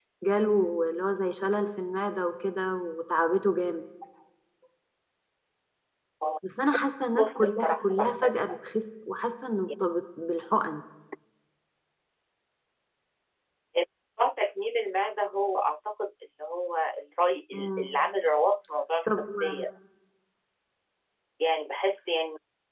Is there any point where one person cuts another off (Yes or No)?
Yes